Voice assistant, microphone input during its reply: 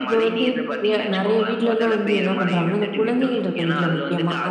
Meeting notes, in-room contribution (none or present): none